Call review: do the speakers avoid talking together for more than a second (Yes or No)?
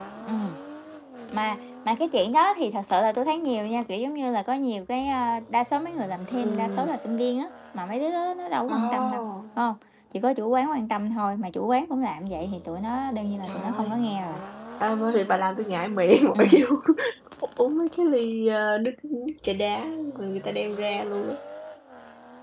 Yes